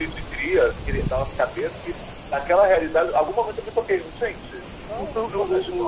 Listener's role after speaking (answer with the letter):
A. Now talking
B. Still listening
A